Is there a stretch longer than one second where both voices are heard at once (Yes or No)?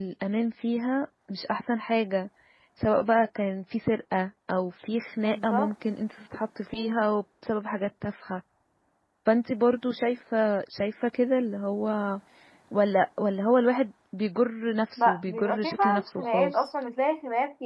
Yes